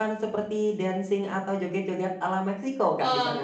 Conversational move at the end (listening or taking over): taking over